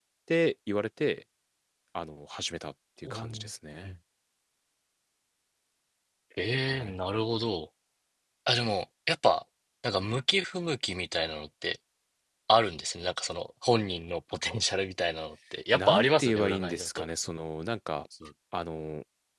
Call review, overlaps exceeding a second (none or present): present